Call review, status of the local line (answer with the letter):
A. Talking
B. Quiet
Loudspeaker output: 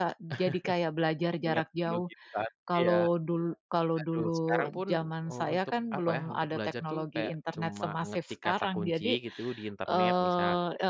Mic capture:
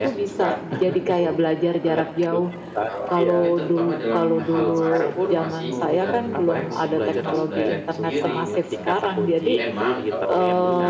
A